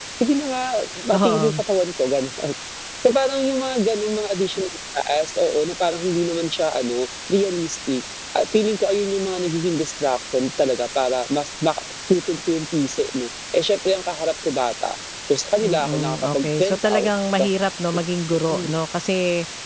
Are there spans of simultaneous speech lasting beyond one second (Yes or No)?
Yes